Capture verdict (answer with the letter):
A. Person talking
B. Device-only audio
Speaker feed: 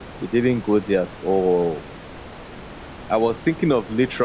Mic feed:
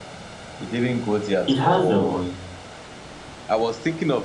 A